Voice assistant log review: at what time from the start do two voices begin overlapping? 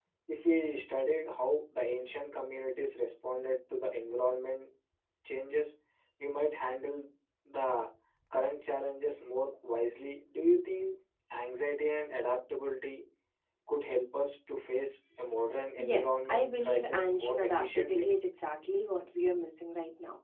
15.8 s

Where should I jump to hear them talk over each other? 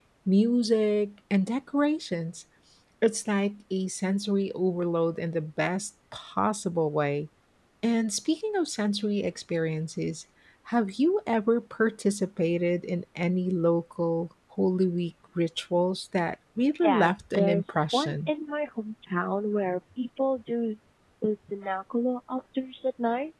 16.8 s

